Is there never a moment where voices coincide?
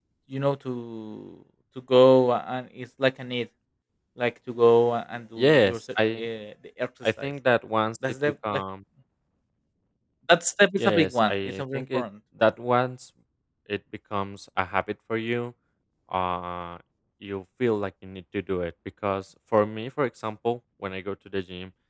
No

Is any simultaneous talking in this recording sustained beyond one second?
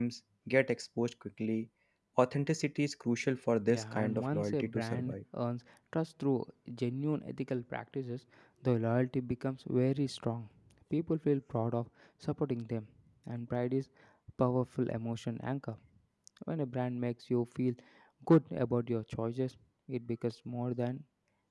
Yes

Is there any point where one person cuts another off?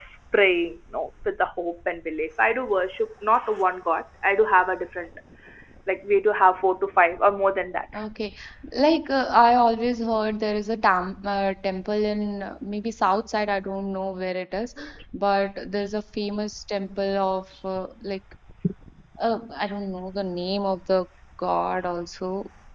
No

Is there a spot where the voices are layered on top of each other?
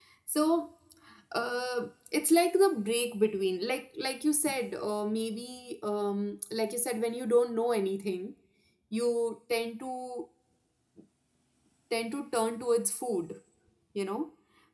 No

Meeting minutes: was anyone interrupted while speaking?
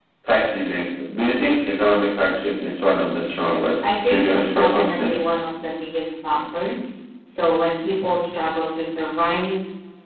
Yes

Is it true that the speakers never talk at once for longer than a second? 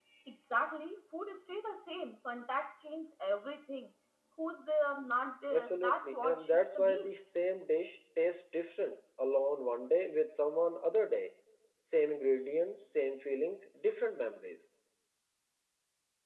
No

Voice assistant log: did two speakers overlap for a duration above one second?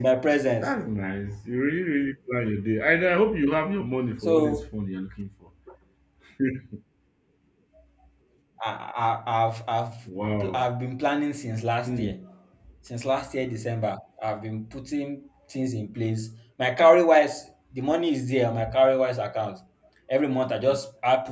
No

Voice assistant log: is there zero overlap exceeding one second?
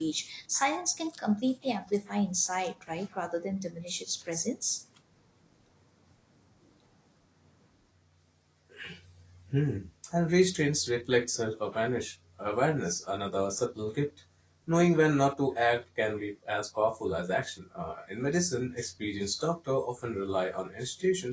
Yes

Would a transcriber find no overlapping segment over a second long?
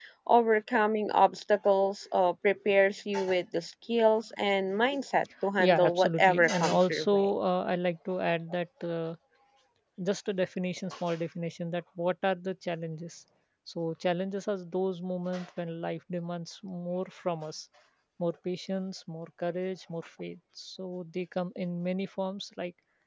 No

